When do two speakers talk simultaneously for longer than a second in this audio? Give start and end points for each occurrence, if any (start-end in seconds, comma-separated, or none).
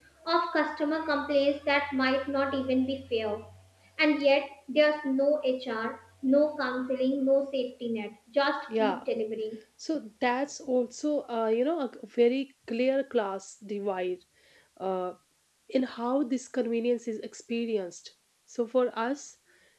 none